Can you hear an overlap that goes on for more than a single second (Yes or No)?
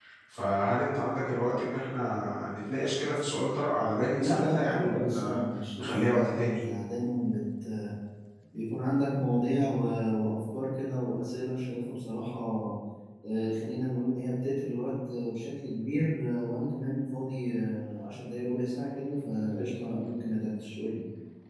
Yes